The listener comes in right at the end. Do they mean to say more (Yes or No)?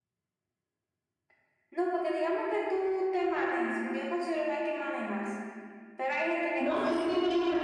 Yes